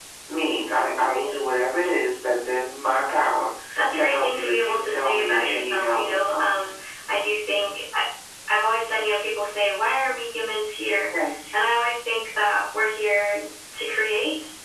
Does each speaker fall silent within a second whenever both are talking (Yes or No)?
No